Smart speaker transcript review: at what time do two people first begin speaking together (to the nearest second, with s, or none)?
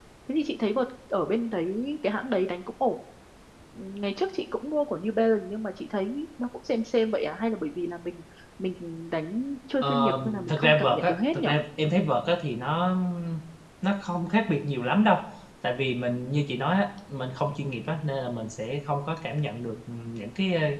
10 s